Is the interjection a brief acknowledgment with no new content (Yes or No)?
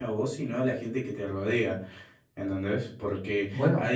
Yes